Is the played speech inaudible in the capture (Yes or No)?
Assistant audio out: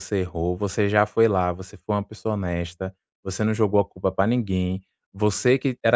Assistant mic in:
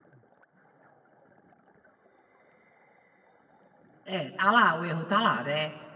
Yes